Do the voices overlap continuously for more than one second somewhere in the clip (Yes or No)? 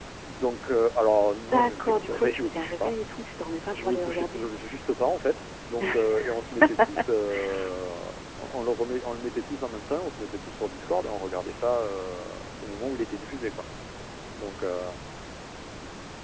Yes